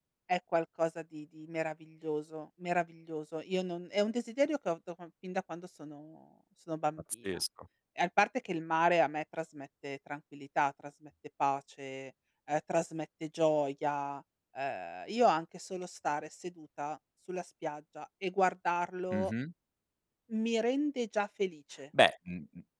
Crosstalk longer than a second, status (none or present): none